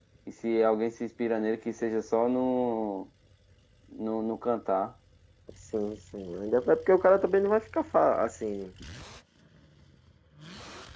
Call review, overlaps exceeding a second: none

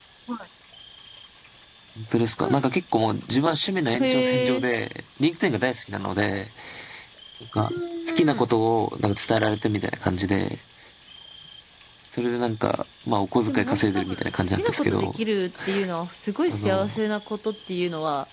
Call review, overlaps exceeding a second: present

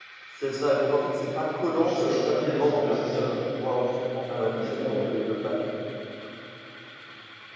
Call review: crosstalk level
present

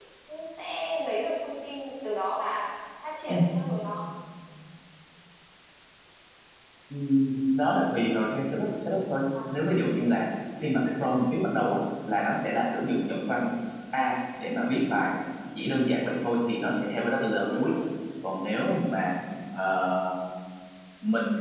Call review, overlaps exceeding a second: none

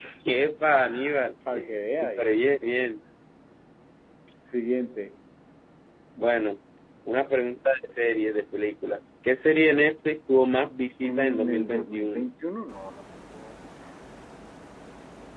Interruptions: present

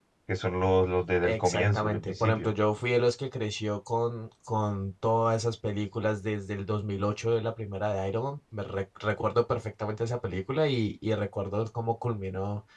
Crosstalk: present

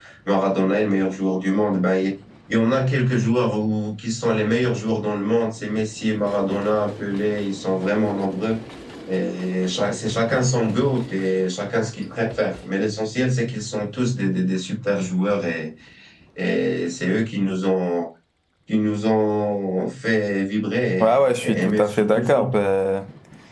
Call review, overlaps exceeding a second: present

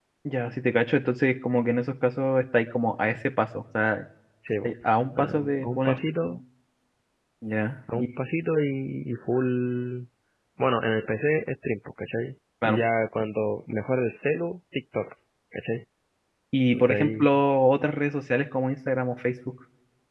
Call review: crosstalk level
present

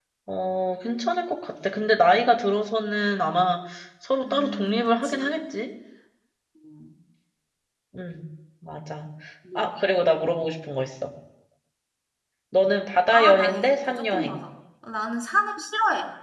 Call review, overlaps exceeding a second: present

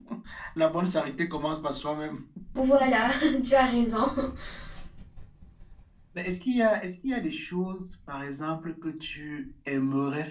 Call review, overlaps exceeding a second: none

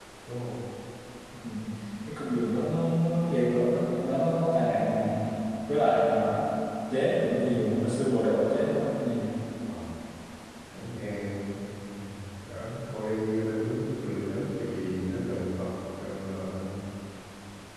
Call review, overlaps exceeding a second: none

